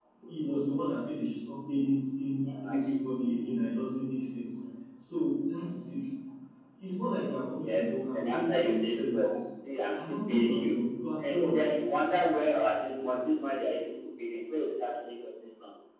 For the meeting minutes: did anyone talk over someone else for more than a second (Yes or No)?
Yes